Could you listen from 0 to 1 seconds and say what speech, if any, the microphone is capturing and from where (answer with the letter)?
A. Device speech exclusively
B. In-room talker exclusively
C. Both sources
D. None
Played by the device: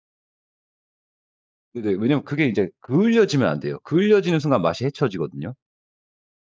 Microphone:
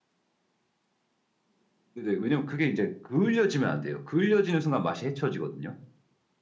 D